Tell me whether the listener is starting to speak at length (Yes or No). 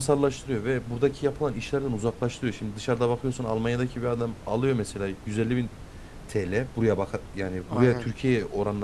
No